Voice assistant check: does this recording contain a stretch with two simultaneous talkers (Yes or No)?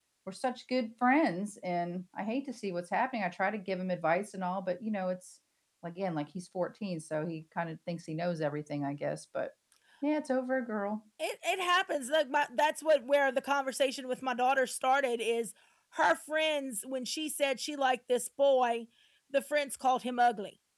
No